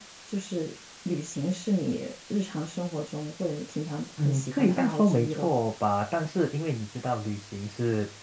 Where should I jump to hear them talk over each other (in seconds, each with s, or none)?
4.2 s